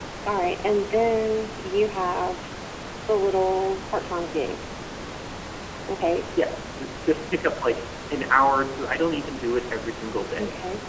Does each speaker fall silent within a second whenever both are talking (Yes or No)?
Yes